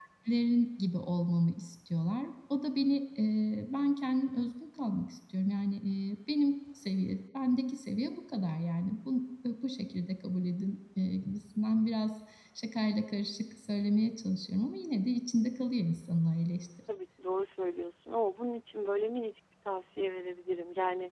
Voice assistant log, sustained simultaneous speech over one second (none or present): none